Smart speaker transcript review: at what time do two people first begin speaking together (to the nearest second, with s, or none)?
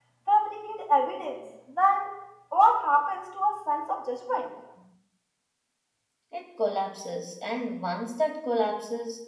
none